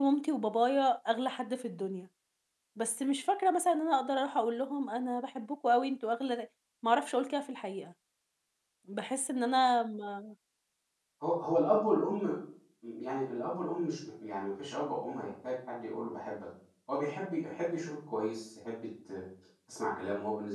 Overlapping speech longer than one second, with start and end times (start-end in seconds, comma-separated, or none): none